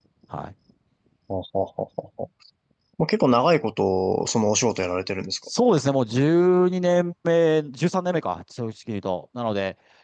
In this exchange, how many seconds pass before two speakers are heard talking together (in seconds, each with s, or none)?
none